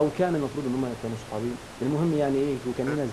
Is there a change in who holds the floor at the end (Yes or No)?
No